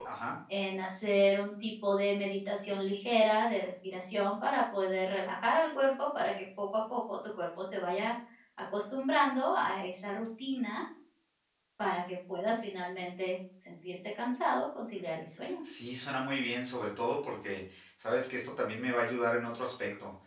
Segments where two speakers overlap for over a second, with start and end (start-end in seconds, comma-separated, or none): none